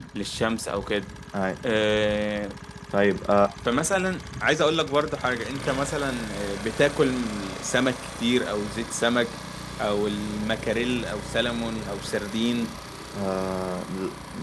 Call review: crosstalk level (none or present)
none